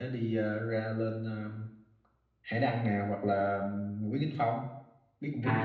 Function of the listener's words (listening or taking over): taking over